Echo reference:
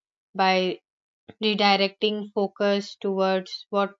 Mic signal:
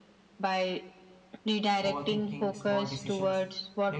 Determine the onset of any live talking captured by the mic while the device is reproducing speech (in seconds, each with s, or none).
1.8 s